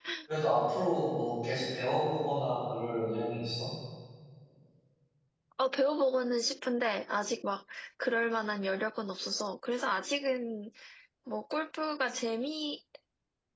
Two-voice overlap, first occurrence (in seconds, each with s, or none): none